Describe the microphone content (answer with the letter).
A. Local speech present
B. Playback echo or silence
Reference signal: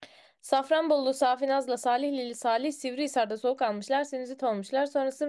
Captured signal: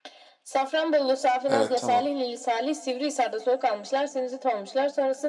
A